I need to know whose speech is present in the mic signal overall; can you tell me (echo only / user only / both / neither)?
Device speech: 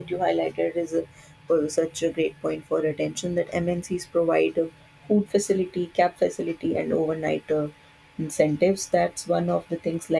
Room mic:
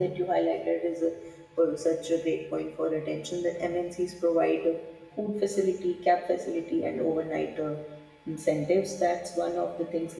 echo only